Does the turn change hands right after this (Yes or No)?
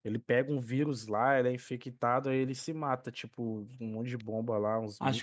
Yes